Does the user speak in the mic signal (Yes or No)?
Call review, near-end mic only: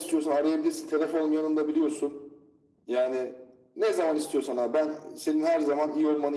No